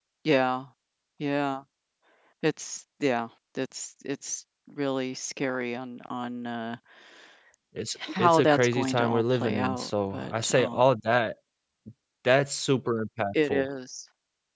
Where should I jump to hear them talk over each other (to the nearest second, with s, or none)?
8 s